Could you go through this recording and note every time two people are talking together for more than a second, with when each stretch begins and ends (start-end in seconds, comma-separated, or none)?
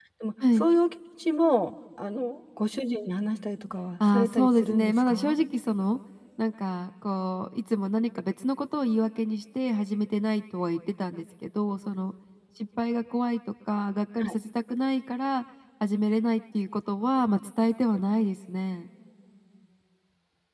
4.1-5.4